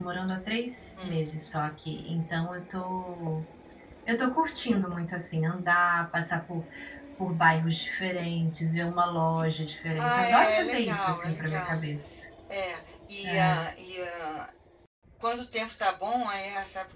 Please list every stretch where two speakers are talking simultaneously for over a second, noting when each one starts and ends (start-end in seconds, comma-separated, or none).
10.0-11.8